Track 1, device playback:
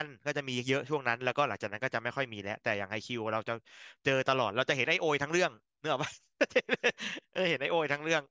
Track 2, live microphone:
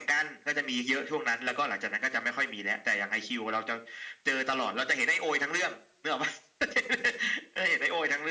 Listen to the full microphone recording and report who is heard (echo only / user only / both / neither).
echo only